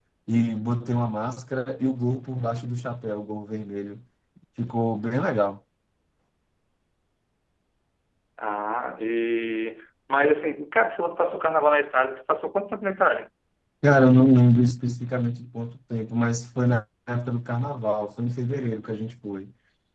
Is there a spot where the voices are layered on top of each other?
No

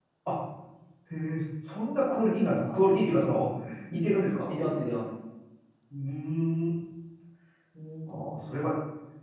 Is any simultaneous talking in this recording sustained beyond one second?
No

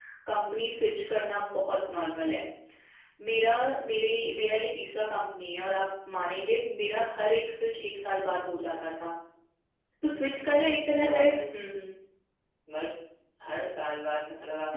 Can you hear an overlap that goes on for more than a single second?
No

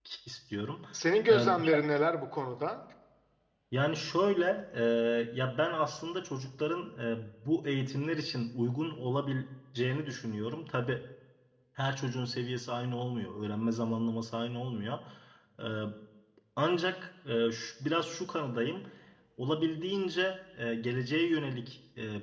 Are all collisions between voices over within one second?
Yes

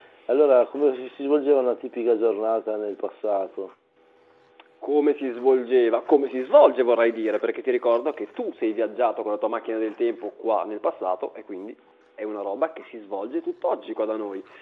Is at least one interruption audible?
No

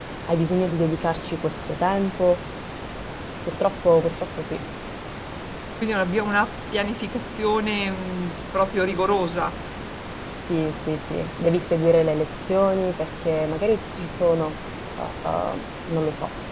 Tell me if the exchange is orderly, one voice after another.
Yes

